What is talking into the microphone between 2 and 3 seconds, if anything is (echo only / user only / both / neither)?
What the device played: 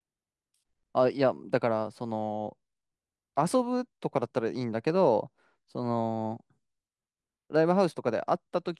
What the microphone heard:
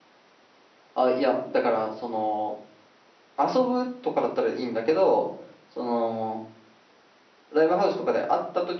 echo only